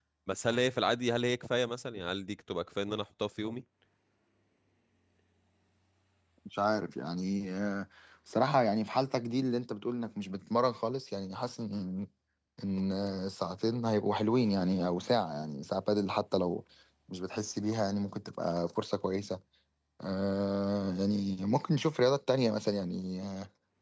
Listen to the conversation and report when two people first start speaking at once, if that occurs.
none

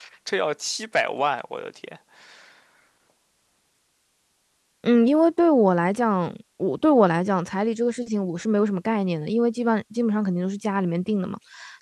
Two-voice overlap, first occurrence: none

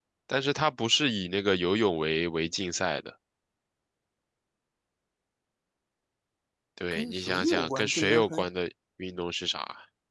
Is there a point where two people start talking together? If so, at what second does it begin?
6.9 s

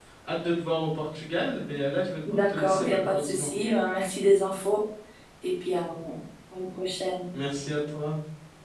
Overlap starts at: 2.2 s

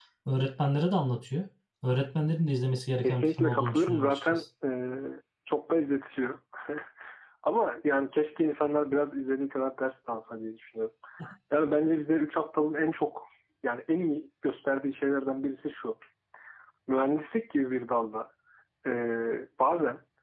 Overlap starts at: 3.0 s

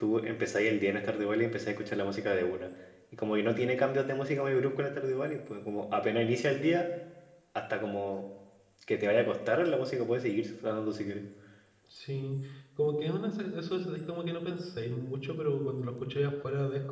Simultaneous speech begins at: none

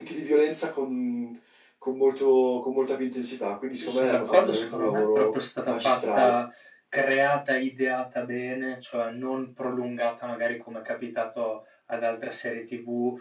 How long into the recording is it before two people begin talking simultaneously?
3.8 s

